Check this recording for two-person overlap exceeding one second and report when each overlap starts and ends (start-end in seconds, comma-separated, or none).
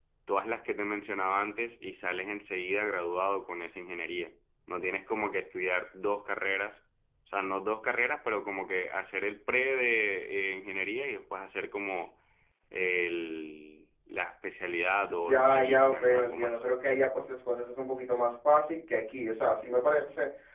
15.1-16.6